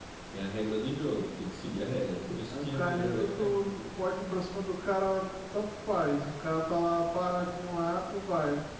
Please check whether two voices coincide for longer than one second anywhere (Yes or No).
Yes